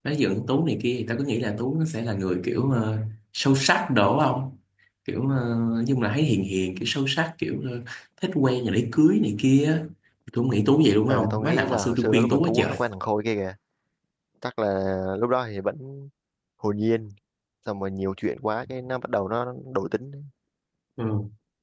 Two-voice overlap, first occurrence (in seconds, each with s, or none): 11.1 s